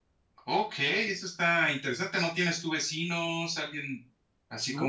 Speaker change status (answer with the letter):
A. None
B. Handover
B